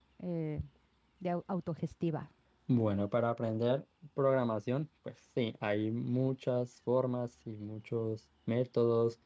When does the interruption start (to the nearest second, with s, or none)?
none